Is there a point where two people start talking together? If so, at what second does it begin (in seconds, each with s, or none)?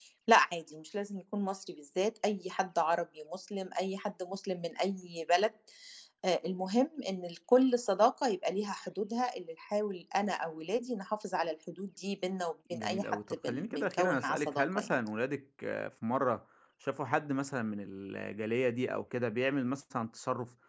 12.7 s